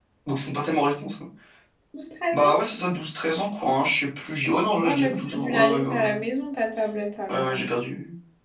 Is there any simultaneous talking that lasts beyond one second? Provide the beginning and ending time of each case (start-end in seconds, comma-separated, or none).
4.8-6.1